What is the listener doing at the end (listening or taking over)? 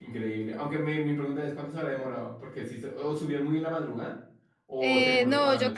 taking over